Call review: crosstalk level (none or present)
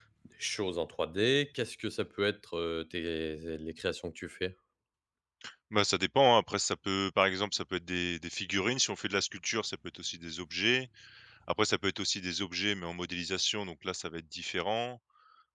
none